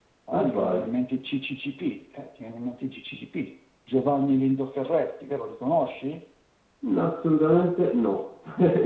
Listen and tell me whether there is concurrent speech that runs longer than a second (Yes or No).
No